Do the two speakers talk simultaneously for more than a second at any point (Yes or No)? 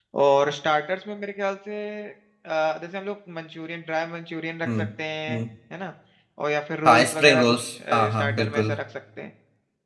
Yes